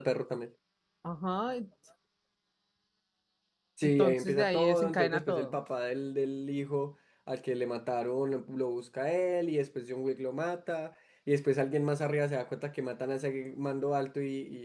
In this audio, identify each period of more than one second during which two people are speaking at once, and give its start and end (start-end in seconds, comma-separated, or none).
3.8-5.6